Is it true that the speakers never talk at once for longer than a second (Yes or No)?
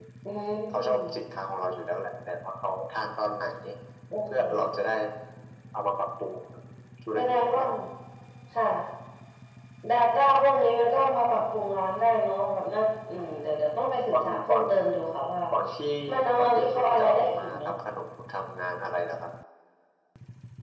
No